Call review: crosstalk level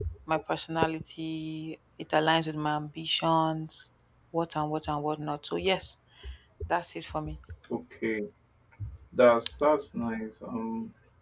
none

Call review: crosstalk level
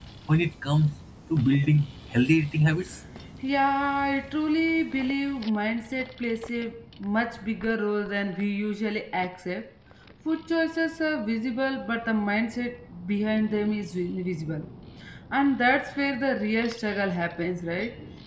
none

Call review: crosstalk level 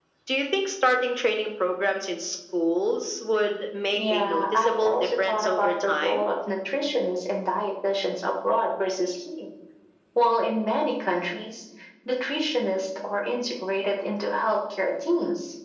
present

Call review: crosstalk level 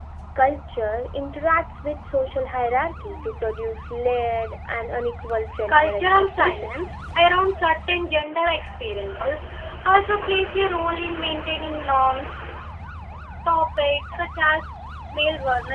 present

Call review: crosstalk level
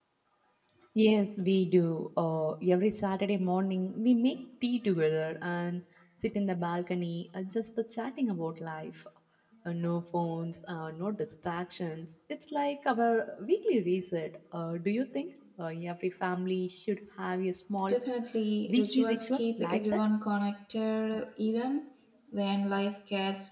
present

